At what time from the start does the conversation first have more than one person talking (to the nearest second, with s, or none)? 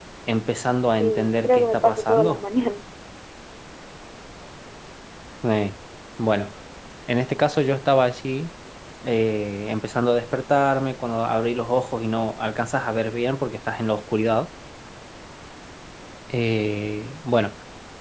1 s